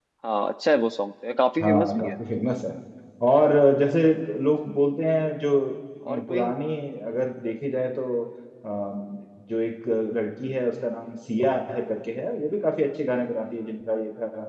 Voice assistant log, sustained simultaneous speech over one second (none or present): none